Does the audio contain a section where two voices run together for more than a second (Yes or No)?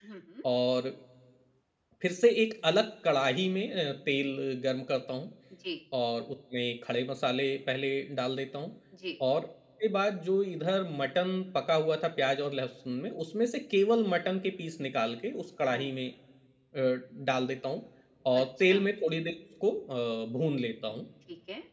No